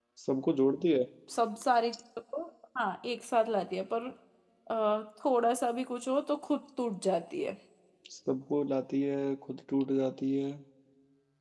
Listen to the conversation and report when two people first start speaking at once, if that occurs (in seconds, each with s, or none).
none